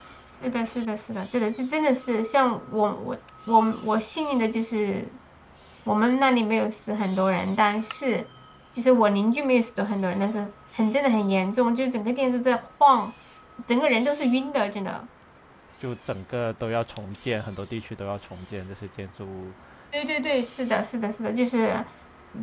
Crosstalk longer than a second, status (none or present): none